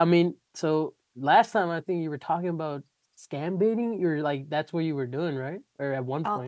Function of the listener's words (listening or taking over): taking over